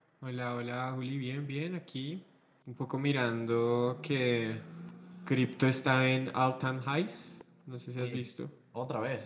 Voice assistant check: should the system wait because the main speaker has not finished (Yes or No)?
No